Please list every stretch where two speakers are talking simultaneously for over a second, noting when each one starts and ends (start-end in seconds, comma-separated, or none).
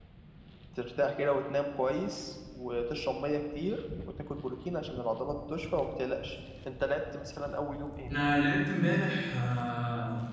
none